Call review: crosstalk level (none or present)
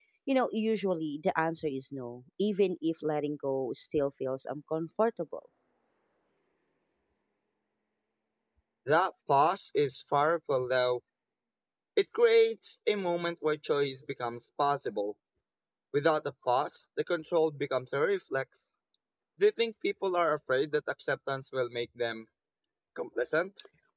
none